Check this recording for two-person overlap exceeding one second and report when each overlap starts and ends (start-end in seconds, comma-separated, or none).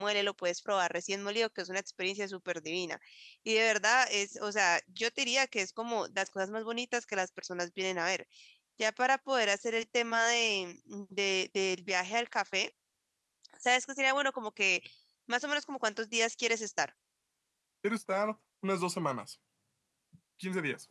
none